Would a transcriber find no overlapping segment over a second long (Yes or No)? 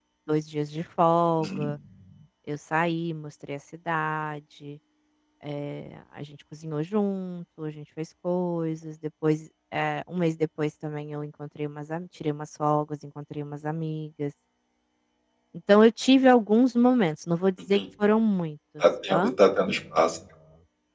Yes